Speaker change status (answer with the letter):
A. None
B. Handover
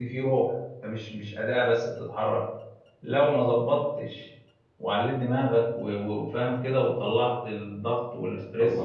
B